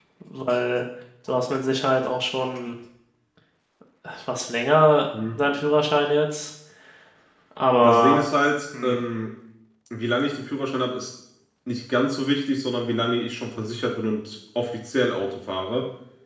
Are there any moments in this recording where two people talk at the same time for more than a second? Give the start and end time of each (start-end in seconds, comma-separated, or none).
none